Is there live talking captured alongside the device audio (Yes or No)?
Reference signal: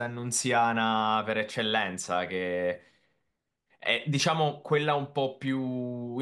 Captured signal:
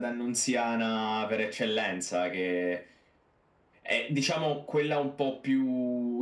No